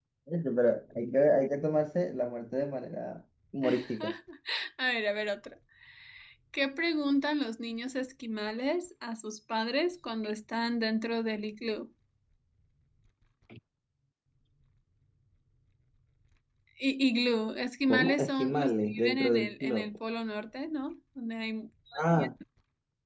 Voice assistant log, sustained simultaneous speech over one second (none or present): present